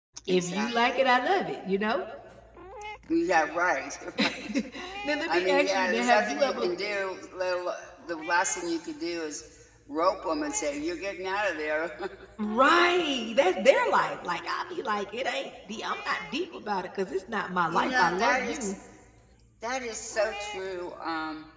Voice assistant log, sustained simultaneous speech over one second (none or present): present